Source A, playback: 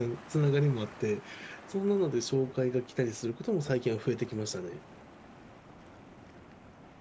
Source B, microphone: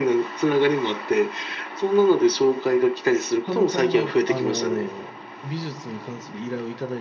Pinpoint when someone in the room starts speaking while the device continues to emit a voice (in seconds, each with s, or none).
3.4 s